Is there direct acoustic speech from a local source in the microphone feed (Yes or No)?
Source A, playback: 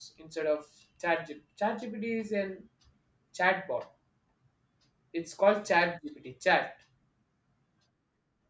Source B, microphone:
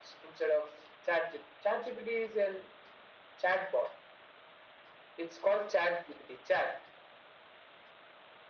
No